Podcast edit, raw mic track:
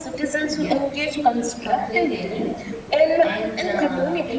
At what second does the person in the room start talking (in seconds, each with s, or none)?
0.5 s